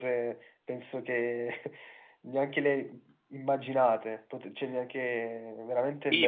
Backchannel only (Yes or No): No